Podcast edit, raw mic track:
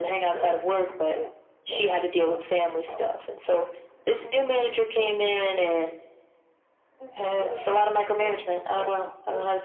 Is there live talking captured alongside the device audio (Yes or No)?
No